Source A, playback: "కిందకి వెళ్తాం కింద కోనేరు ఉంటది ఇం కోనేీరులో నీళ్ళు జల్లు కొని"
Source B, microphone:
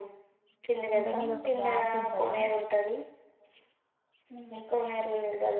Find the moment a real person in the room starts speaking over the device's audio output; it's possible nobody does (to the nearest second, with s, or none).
1 s